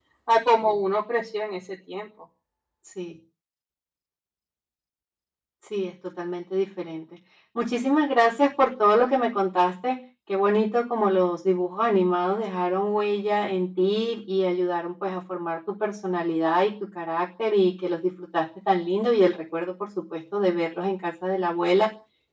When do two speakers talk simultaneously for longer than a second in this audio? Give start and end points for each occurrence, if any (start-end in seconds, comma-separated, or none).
none